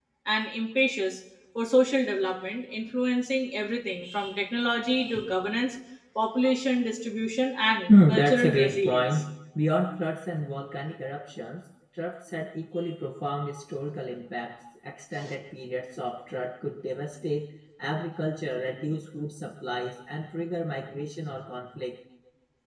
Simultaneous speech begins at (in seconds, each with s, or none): 7.9 s